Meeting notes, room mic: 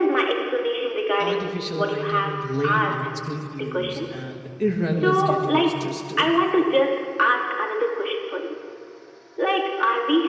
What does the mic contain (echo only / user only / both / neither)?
both